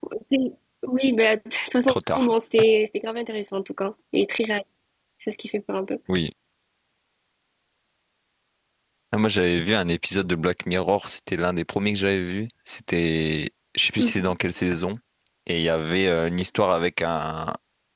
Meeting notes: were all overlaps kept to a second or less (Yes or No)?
Yes